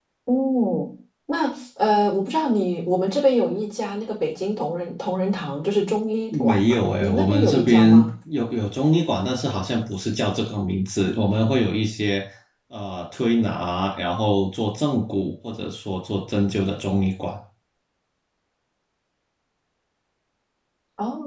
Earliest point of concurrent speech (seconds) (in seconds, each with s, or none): 6.3 s